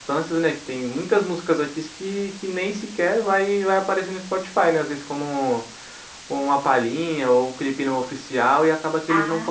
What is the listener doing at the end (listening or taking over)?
listening